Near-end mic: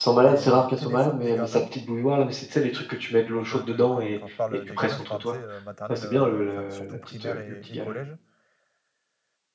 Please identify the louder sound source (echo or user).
user